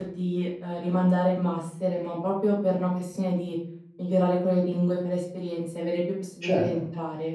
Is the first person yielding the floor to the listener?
Yes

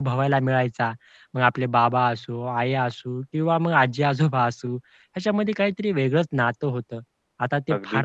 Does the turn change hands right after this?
No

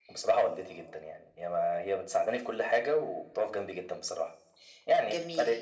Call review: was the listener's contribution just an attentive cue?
No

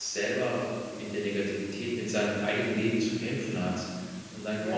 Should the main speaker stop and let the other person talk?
No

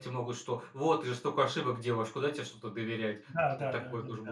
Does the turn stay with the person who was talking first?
No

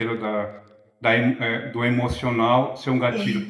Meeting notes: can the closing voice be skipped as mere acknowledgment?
Yes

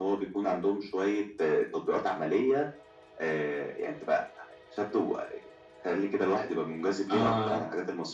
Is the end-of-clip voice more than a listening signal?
Yes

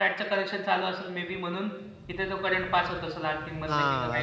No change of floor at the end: No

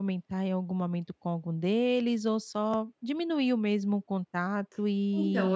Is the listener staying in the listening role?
No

